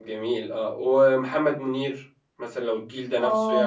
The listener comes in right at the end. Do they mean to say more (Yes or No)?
Yes